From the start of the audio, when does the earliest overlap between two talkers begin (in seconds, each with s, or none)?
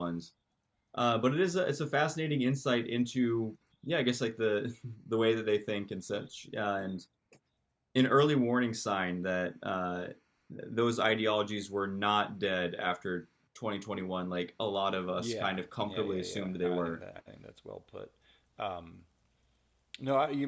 15.2 s